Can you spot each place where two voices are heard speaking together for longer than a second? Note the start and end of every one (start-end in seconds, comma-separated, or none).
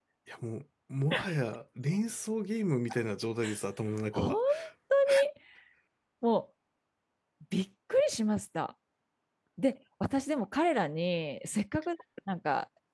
none